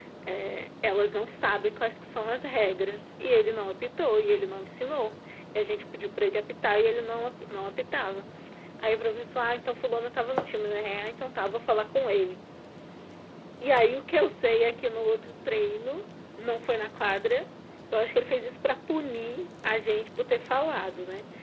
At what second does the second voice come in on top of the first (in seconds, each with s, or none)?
none